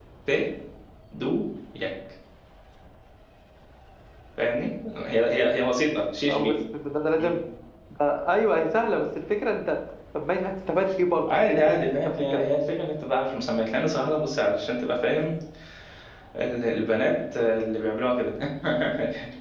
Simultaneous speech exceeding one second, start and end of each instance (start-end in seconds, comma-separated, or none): 11.3-12.5